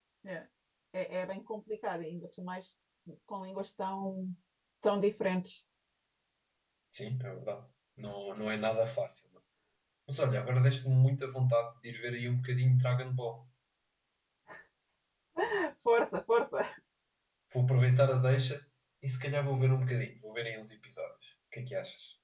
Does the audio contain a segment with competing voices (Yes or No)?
No